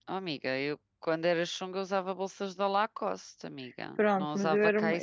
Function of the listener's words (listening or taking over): taking over